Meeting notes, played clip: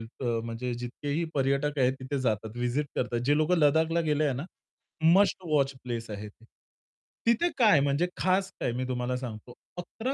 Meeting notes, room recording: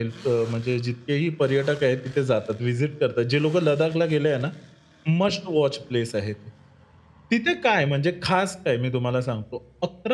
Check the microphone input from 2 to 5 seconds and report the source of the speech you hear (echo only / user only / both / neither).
echo only